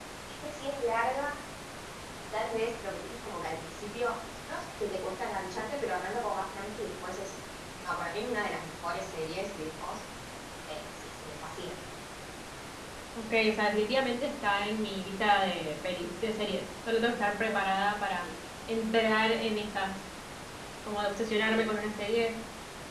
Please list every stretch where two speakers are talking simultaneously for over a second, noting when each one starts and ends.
none

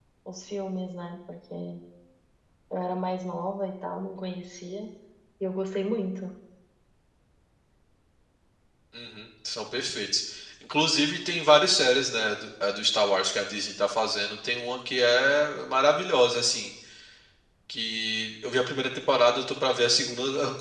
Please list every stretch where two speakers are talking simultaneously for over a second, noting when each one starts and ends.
none

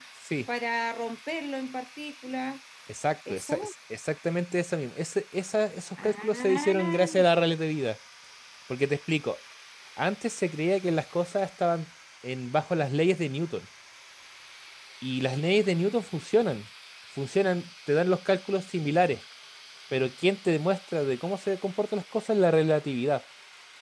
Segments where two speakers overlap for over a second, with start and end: 6.0-7.2

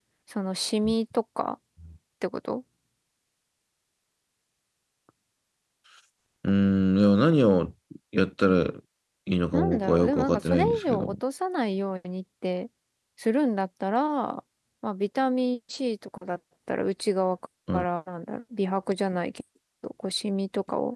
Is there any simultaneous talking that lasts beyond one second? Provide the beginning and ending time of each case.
9.5-11.1

